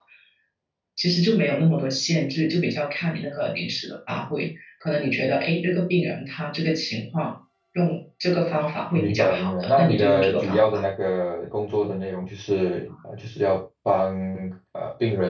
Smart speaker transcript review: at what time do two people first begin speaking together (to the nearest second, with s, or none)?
9 s